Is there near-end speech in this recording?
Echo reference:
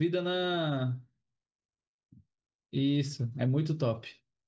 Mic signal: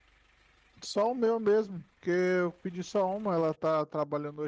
Yes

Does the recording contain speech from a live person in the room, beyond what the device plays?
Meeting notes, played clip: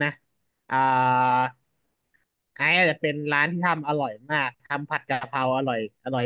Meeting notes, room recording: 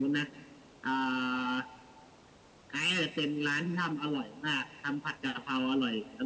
No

